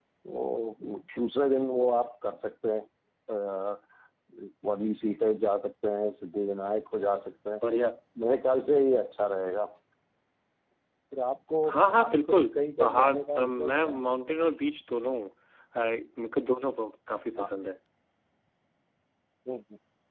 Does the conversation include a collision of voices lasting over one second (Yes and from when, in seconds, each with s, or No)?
Yes, from 11.7 s